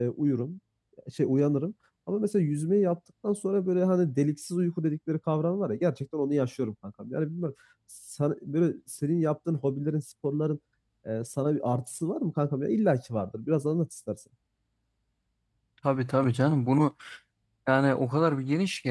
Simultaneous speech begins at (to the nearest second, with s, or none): none